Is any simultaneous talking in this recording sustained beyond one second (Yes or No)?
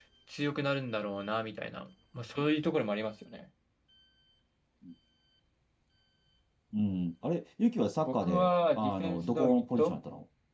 Yes